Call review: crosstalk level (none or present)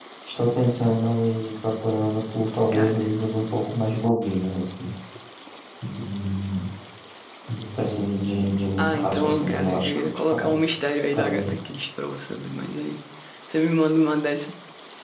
present